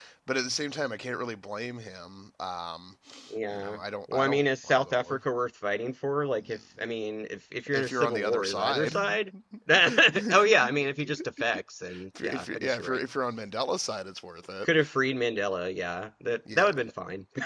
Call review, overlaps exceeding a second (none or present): present